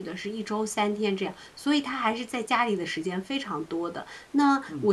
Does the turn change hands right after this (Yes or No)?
No